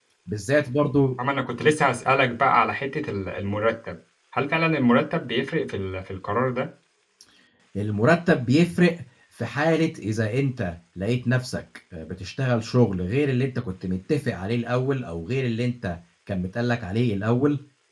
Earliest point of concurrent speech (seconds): none

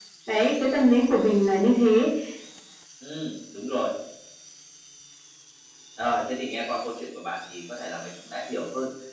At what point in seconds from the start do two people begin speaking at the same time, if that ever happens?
none

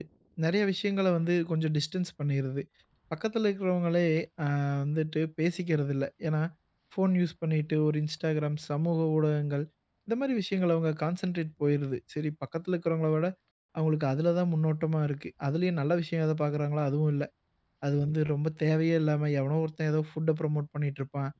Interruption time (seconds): none

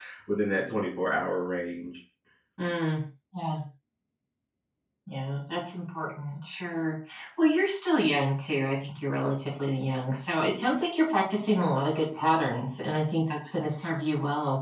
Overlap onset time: none

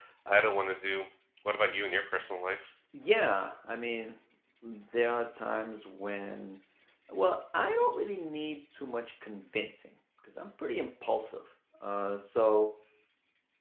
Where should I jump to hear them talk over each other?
none

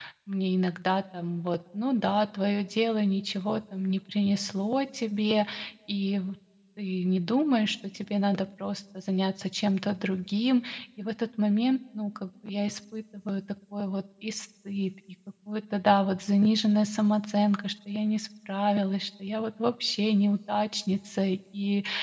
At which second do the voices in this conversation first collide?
none

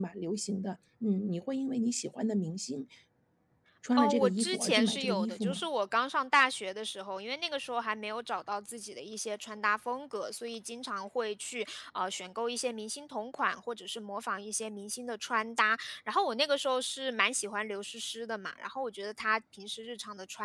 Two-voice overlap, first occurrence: 4.0 s

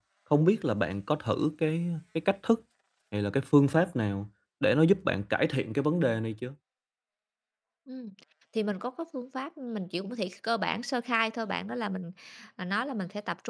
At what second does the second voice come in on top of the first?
none

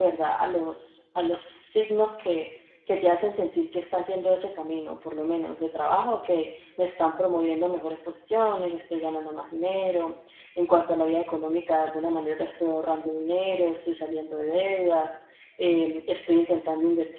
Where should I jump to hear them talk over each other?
none

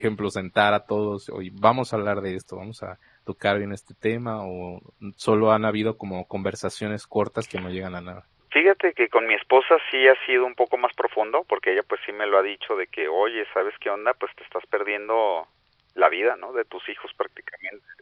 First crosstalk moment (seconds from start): none

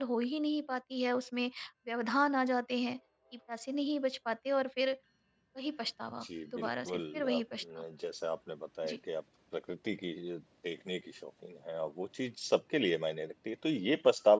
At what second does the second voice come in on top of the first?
6.2 s

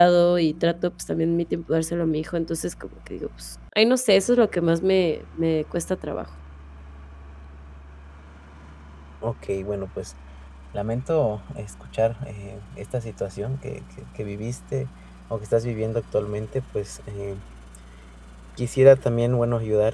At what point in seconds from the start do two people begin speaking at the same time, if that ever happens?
none

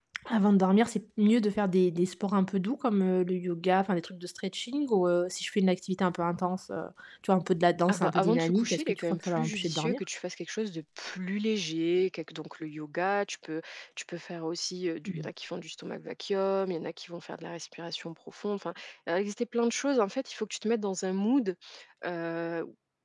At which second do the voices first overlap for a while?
7.9 s

